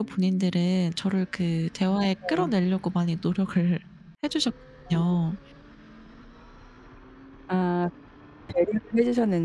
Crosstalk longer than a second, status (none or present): none